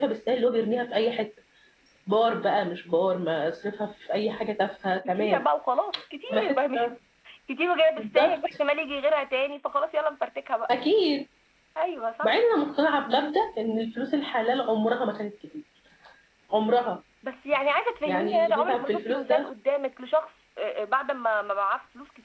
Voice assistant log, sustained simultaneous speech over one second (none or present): present